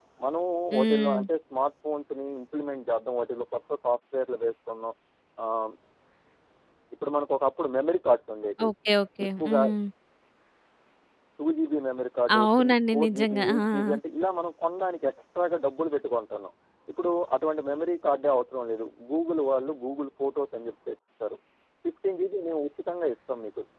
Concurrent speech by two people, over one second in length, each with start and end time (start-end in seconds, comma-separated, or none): 12.3-14.0